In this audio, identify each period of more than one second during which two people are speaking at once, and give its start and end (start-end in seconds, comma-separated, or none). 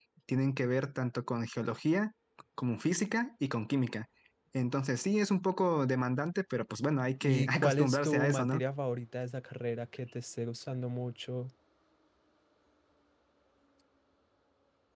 7.2-8.6